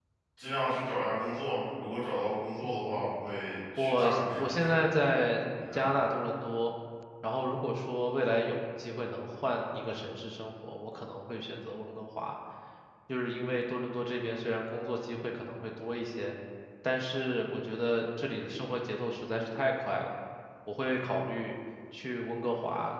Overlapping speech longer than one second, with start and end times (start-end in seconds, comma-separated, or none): 3.8-5.1